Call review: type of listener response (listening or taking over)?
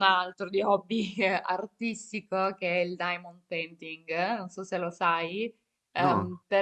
listening